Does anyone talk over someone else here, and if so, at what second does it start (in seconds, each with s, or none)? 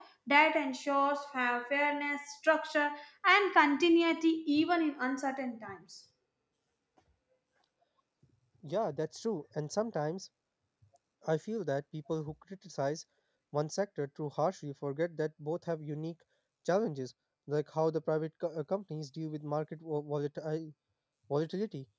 none